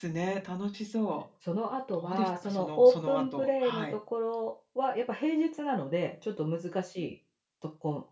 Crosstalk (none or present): present